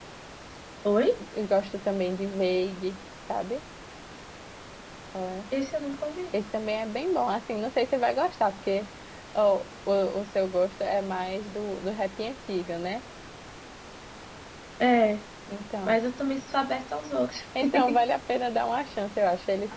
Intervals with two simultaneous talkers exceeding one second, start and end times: none

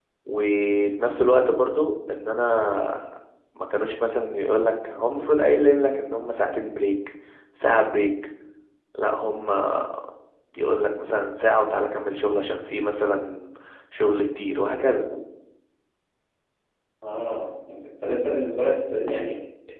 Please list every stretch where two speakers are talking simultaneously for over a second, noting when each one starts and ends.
none

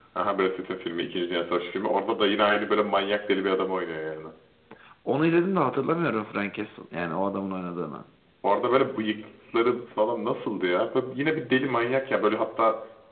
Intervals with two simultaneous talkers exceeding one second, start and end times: none

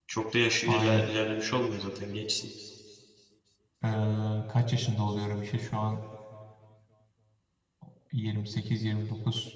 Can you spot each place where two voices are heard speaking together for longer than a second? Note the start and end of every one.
none

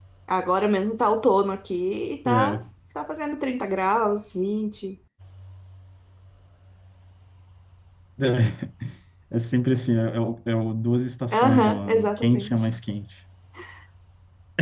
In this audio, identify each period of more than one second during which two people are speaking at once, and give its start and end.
11.3-12.7

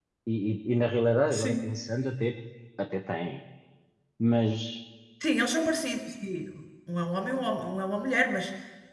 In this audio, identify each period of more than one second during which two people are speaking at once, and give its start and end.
none

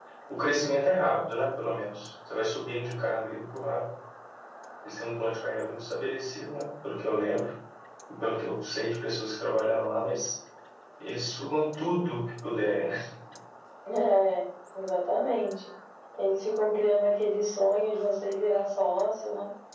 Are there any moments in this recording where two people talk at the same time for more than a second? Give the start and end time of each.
none

